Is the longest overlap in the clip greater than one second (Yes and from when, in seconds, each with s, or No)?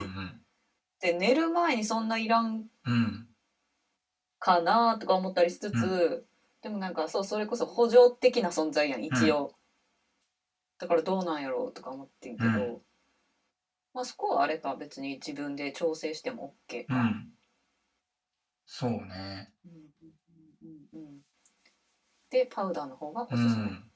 No